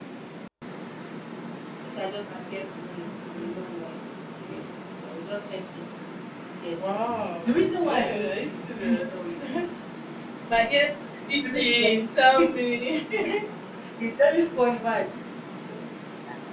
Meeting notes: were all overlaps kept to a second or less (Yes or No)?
No